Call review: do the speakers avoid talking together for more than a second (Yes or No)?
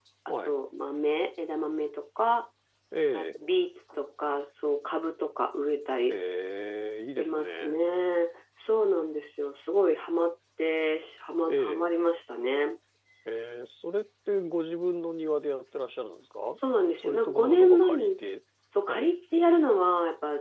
No